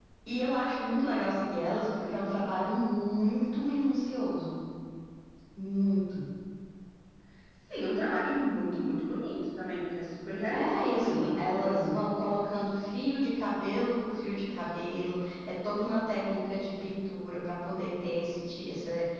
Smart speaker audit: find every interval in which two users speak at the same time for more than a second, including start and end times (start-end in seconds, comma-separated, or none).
10.5-12.0